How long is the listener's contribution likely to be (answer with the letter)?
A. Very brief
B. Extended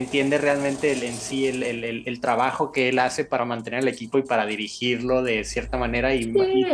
A